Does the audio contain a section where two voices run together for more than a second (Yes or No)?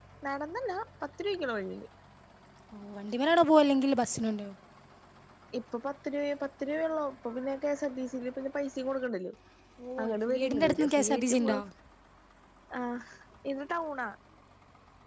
Yes